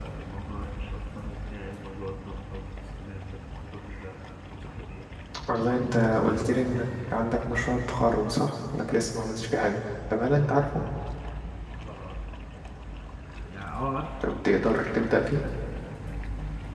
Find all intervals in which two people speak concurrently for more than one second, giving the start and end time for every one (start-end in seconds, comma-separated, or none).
none